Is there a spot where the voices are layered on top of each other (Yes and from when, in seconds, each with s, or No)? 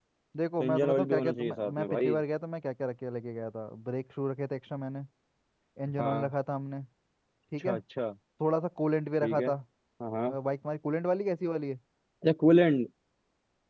Yes, from 0.6 s